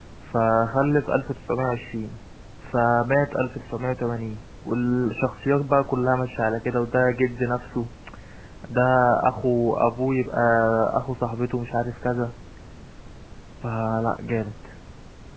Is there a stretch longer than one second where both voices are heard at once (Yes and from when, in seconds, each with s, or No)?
No